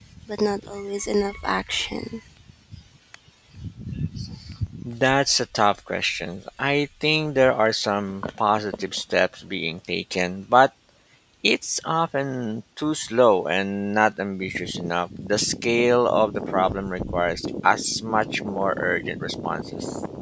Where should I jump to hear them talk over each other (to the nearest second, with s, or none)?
none